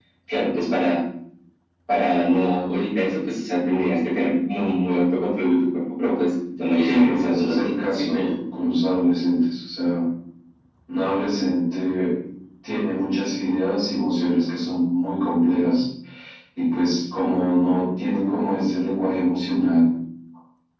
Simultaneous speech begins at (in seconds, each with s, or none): 6.8 s